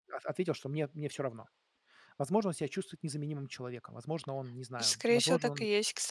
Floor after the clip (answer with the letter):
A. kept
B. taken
B